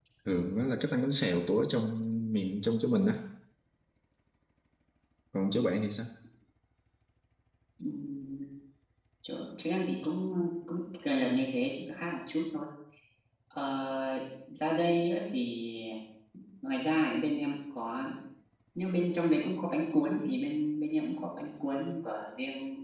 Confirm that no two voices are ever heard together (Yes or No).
Yes